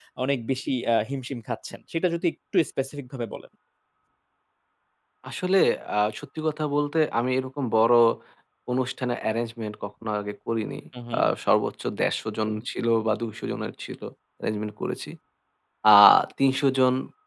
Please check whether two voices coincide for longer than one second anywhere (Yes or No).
No